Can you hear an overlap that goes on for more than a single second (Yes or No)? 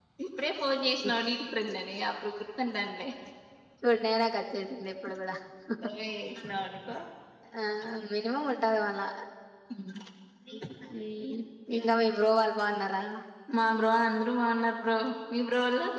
No